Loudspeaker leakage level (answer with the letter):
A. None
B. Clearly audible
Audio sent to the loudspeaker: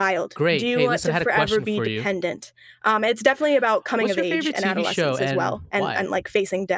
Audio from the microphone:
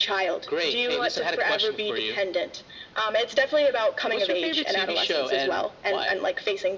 B